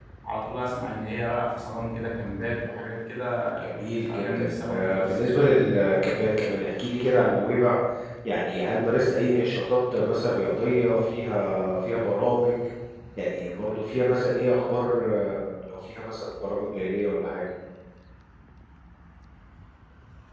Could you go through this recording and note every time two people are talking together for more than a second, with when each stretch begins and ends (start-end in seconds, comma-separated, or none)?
4.1-5.5